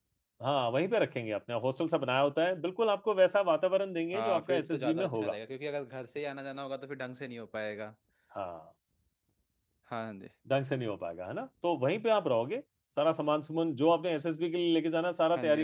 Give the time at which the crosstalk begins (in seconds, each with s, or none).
4.1 s